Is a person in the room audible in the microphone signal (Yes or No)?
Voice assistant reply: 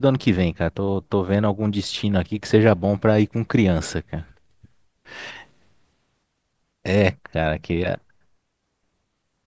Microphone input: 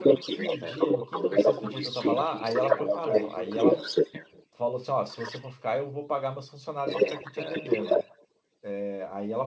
Yes